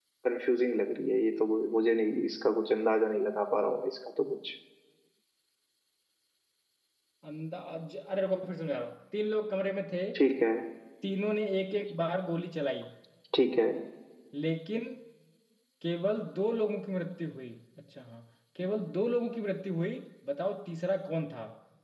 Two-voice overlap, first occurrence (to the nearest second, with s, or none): none